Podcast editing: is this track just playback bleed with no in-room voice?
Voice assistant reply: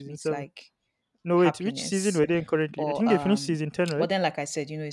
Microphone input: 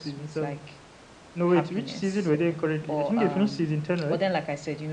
Yes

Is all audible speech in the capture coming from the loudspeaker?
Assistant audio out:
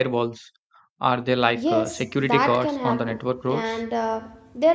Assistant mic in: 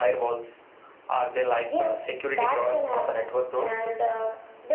Yes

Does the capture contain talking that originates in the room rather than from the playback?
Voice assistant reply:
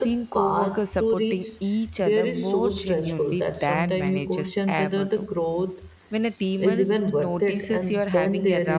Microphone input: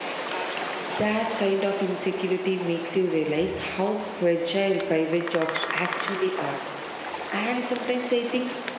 Yes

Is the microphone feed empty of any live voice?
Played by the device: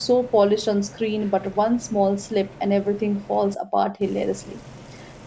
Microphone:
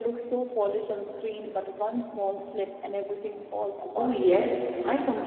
No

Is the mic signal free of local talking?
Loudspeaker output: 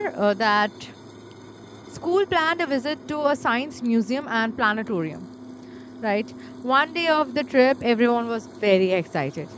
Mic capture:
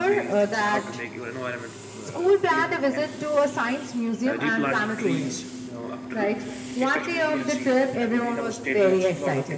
No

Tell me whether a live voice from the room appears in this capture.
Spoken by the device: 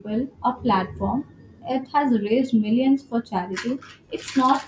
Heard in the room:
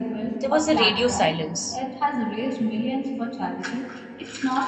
Yes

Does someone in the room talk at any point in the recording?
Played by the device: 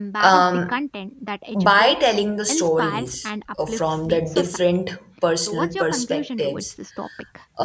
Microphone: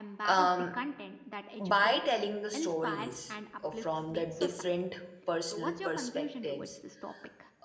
No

